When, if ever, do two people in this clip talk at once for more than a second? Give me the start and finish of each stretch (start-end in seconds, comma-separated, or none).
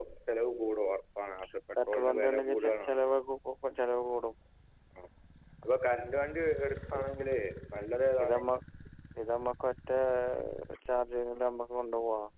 1.9-3.1